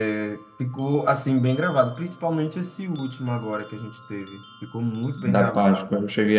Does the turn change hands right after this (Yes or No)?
Yes